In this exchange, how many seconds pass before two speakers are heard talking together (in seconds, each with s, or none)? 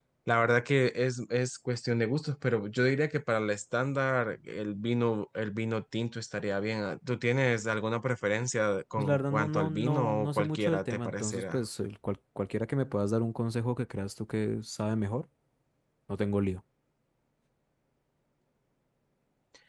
9.0 s